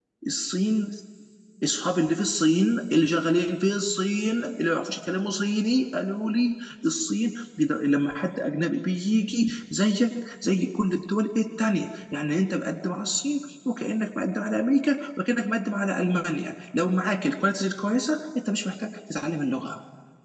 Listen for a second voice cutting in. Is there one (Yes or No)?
No